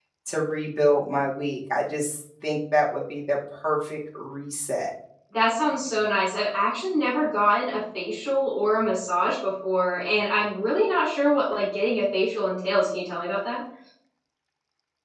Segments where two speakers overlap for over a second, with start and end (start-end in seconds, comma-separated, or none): none